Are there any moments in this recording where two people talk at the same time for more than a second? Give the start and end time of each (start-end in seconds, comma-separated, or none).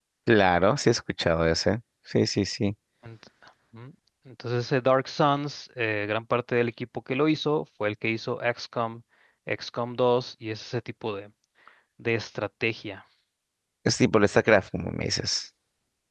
none